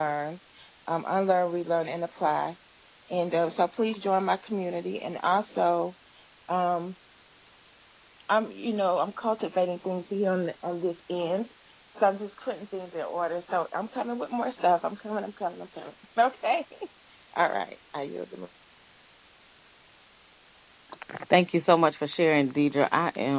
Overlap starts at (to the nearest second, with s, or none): none